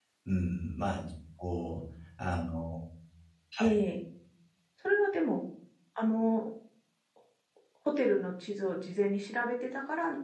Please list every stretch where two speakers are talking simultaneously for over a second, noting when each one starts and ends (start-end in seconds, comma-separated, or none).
none